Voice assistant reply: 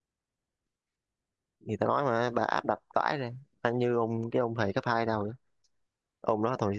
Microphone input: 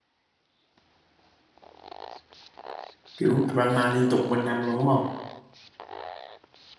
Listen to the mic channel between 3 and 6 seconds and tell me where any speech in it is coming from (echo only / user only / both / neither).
user only